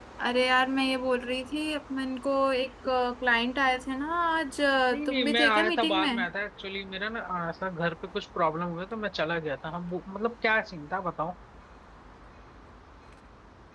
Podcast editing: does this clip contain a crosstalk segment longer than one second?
Yes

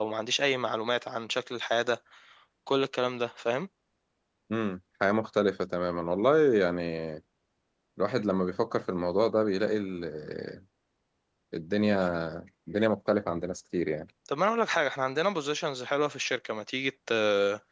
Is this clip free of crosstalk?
Yes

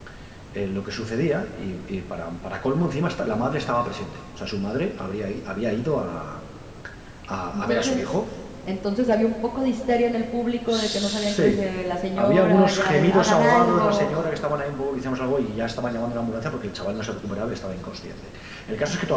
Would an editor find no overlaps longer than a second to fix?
No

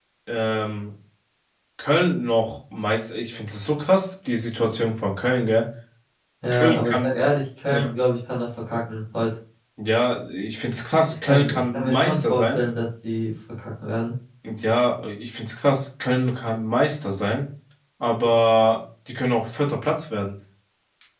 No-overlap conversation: No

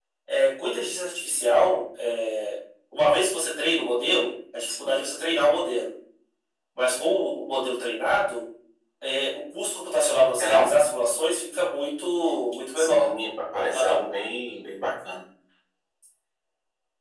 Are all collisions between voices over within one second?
Yes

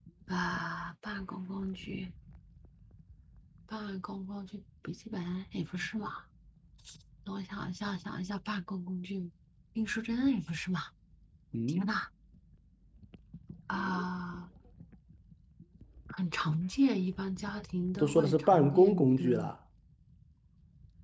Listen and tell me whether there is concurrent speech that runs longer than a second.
Yes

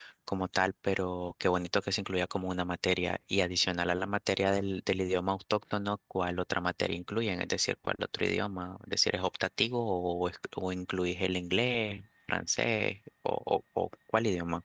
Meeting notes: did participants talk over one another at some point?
No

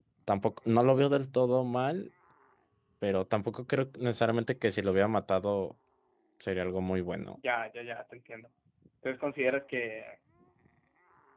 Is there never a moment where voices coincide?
Yes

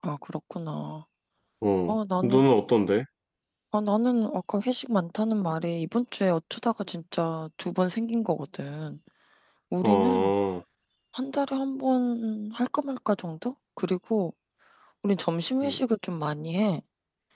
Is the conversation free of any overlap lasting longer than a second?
Yes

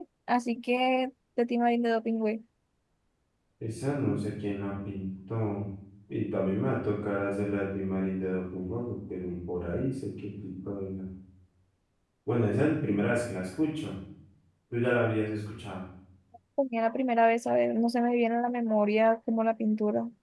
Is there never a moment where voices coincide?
Yes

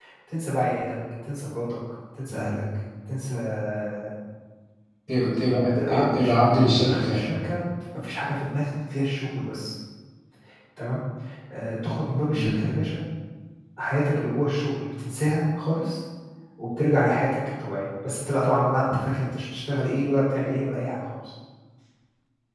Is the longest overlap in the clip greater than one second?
Yes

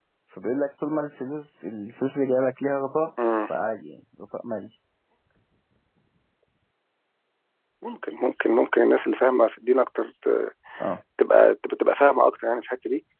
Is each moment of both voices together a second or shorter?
Yes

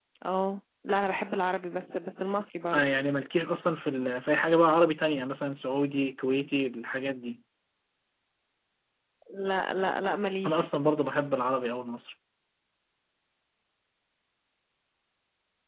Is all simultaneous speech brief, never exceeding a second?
Yes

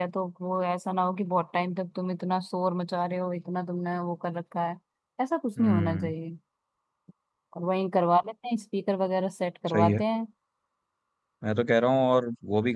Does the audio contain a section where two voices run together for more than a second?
No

